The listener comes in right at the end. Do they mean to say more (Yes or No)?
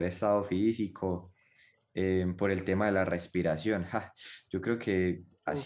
No